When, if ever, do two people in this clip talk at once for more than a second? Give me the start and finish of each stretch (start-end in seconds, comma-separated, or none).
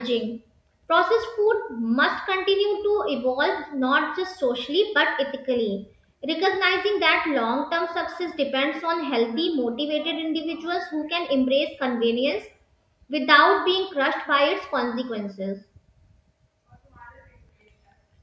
none